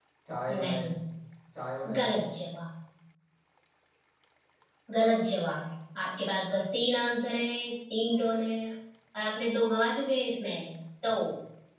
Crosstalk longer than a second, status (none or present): none